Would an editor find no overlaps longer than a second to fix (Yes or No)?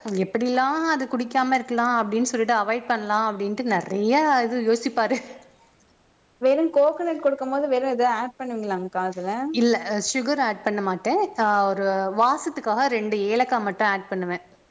Yes